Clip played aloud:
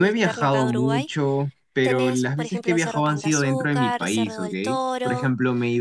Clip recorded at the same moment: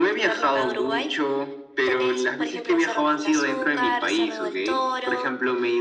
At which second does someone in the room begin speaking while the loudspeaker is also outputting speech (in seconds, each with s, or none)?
none